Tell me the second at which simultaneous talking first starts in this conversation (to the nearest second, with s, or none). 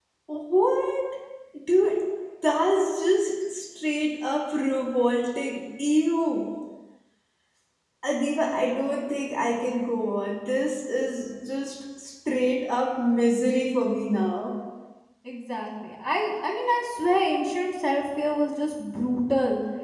none